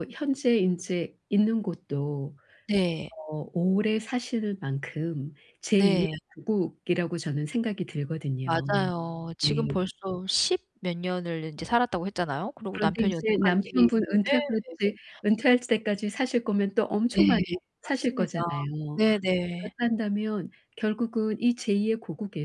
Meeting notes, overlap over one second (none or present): present